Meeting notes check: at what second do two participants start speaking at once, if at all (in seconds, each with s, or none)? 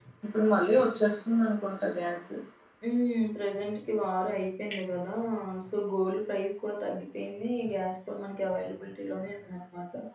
none